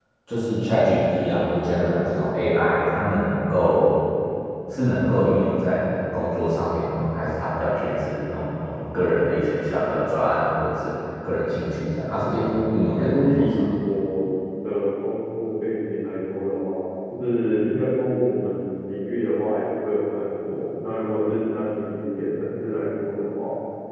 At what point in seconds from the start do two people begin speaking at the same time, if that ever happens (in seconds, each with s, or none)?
12.2 s